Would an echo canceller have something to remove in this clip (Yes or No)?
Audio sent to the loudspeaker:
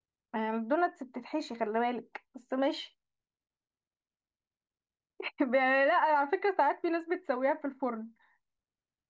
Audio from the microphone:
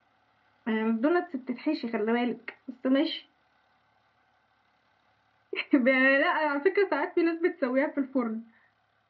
Yes